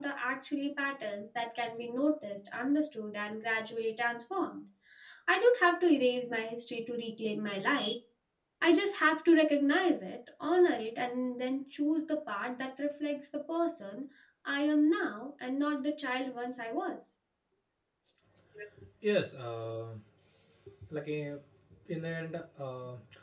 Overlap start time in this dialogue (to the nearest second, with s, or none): none